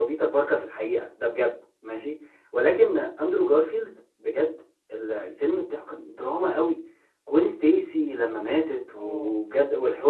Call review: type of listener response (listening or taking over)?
listening